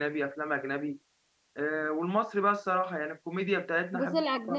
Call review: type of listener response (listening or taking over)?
taking over